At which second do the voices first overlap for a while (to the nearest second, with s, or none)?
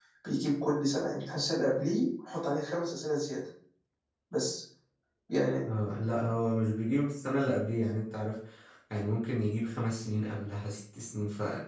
none